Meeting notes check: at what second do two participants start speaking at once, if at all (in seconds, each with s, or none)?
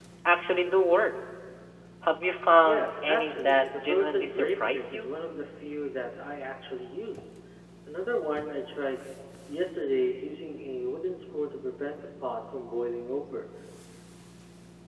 2.6 s